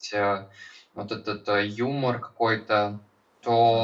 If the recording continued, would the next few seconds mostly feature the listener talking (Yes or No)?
No